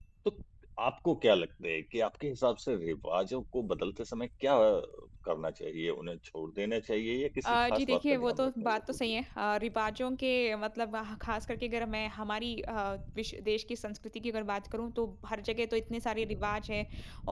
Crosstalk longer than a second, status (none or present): present